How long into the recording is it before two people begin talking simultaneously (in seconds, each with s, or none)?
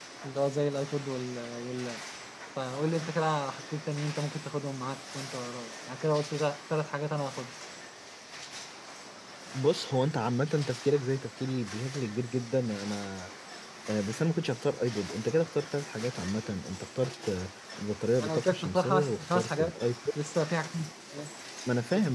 18.2 s